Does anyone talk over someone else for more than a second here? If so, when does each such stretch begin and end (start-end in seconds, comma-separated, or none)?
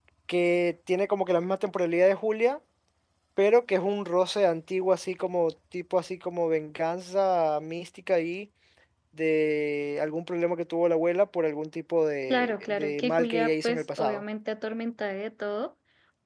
12.3-14.2